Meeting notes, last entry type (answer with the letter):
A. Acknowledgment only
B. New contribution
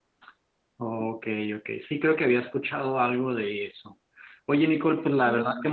A